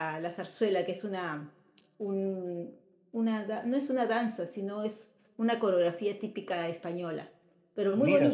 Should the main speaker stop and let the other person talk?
Yes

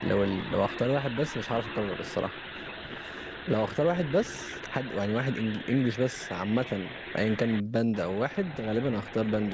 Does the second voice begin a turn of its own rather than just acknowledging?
No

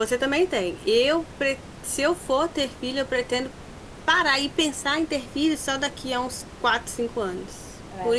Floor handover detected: No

